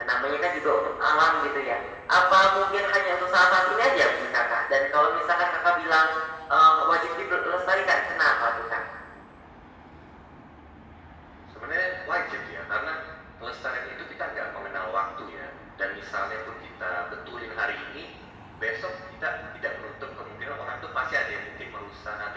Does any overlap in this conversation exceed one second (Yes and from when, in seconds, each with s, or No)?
No